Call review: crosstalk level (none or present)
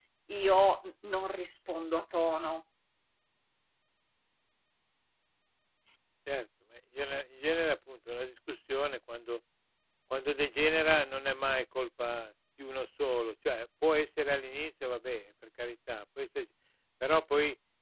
none